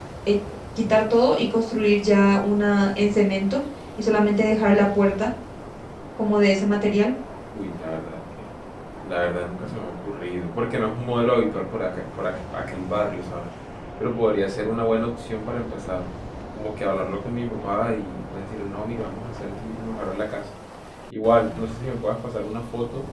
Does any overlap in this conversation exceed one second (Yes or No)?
No